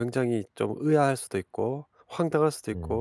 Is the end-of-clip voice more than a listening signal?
No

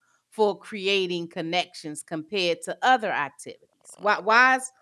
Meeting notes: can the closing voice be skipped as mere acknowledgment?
Yes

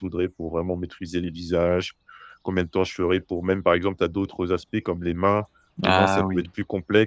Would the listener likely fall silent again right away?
Yes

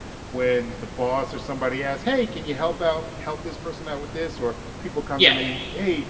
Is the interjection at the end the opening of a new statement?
No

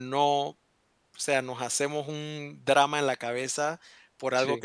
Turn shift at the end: No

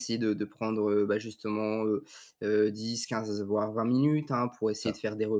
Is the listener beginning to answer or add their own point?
No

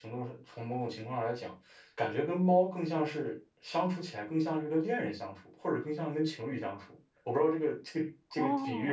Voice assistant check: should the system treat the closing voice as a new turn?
Yes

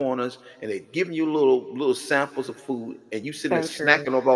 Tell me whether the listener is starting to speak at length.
No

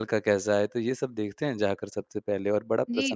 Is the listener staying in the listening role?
No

